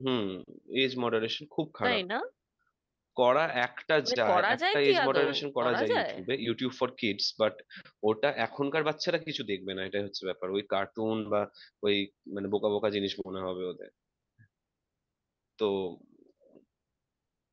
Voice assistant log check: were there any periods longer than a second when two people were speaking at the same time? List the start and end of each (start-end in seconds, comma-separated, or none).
4.0-6.1